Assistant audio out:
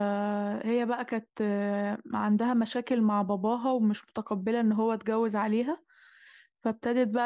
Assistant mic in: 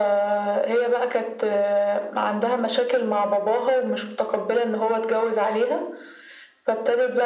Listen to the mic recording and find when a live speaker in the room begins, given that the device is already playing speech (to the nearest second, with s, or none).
none